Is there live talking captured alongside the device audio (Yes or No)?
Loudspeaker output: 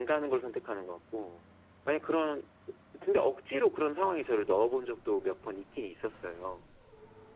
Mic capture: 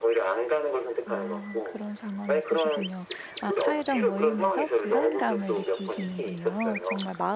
Yes